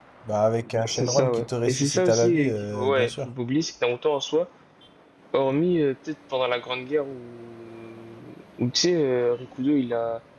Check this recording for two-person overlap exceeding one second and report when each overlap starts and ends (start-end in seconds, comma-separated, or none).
0.9-3.3